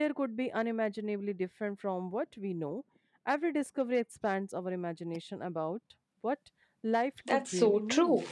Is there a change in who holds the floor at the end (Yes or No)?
Yes